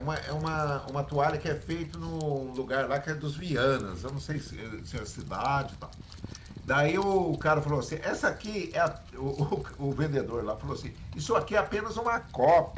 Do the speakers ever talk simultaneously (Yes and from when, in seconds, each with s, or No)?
No